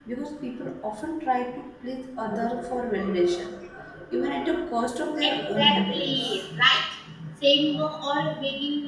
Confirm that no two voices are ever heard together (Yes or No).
No